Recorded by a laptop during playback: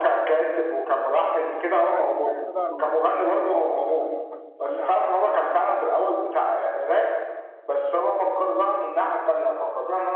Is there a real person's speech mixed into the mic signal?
Yes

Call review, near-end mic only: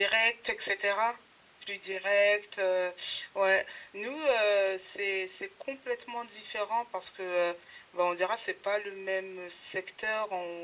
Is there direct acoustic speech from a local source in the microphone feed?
No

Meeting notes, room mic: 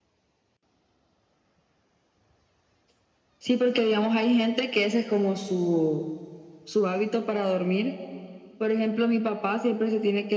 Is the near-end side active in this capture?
No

